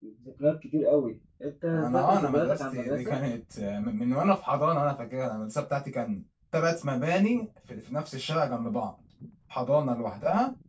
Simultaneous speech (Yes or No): Yes